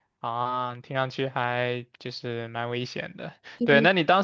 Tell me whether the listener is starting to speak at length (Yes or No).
No